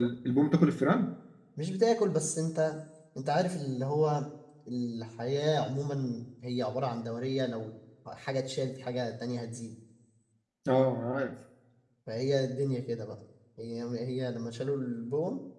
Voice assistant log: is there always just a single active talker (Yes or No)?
Yes